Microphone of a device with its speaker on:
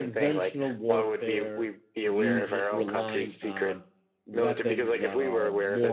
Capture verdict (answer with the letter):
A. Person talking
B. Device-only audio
A